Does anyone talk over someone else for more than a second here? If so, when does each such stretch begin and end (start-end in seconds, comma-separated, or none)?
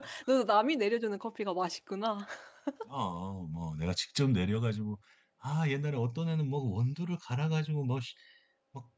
none